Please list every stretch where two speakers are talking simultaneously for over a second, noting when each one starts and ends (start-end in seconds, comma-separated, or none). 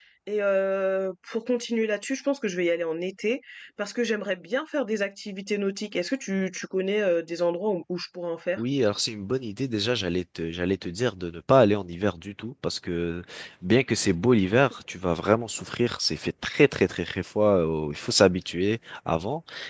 none